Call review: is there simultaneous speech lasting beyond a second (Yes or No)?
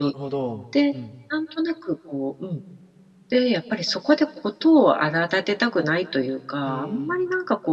No